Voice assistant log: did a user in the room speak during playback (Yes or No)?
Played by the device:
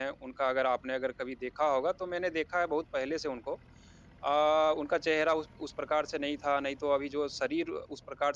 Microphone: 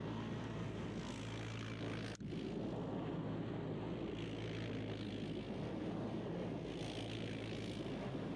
No